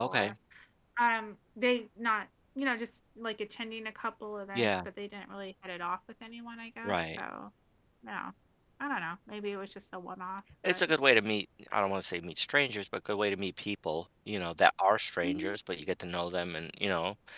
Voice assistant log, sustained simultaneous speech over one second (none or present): none